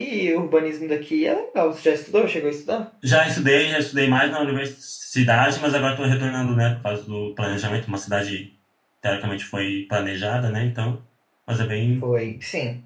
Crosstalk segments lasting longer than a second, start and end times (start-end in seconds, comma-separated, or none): none